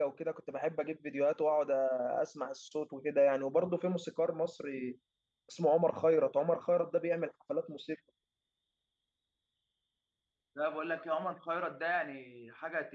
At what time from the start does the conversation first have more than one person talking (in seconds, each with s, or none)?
none